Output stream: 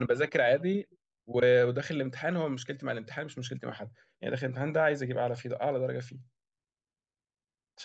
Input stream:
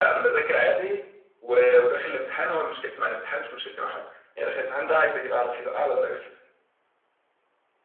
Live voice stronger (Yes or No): No